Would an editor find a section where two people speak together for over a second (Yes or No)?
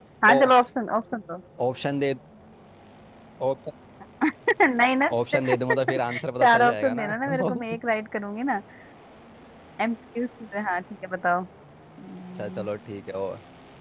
Yes